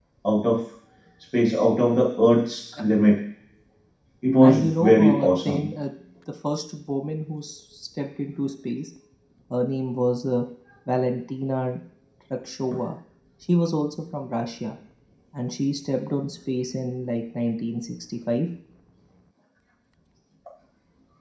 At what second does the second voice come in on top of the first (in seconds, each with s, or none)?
4.4 s